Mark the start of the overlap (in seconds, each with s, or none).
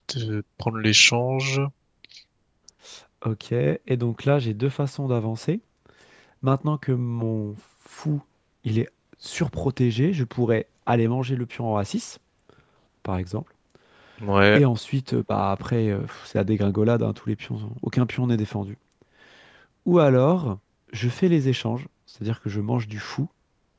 none